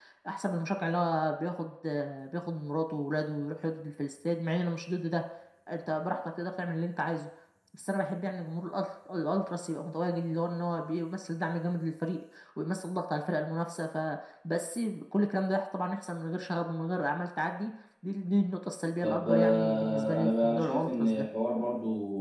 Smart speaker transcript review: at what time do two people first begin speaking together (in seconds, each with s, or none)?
19.0 s